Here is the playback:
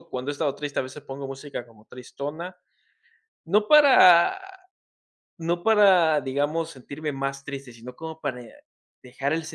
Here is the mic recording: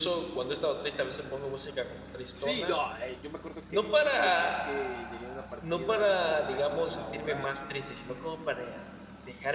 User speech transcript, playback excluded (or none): Sí, no, eh, yo me acuerdo que creo que lo más que llegué a una partida fue una partida como de una hora, pero